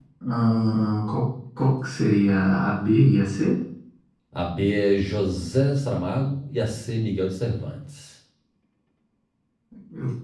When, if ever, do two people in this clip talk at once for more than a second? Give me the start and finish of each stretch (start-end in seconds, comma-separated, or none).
none